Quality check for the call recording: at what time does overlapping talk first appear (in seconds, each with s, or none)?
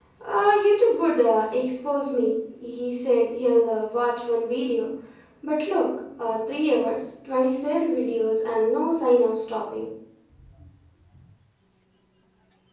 none